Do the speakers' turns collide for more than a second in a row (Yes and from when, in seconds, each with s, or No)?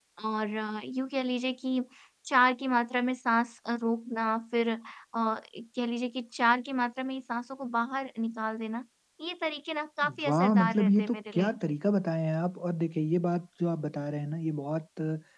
Yes, from 10.0 s